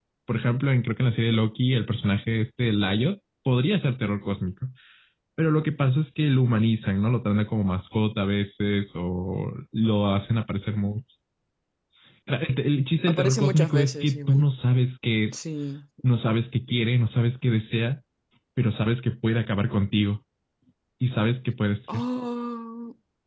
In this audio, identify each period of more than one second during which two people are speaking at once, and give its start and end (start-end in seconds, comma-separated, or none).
13.1-14.5